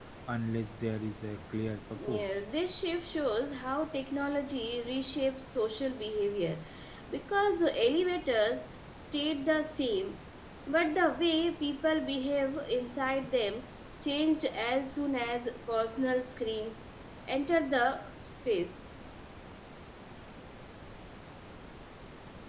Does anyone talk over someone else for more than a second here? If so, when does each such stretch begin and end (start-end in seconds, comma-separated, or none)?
none